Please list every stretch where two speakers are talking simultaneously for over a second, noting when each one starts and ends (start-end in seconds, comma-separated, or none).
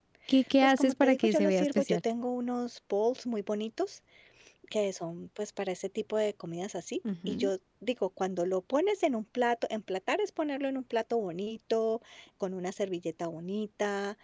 0.6-2.0